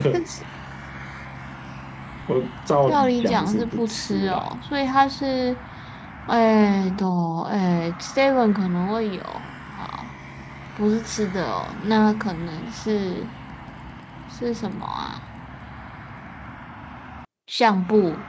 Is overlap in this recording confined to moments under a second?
No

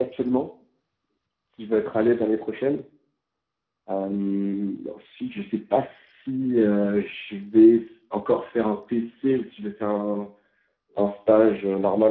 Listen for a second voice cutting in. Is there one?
No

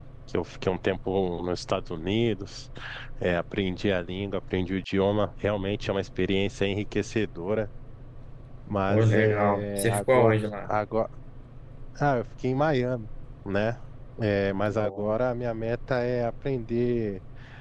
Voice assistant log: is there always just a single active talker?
No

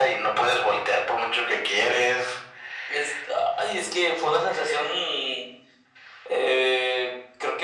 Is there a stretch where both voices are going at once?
No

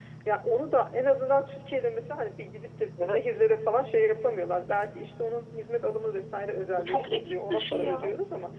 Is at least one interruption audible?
Yes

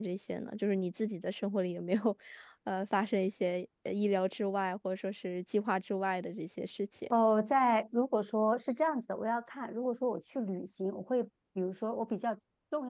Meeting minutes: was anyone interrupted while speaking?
No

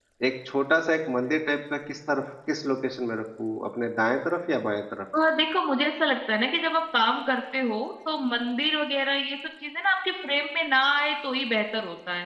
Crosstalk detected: No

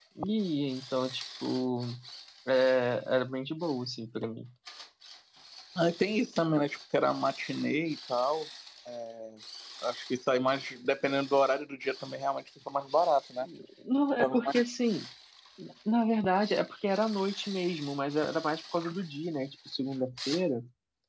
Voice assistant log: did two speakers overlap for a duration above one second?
No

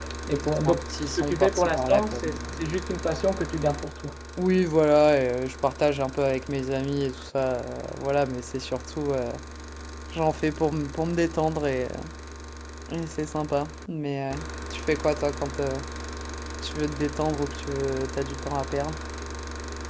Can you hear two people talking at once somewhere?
Yes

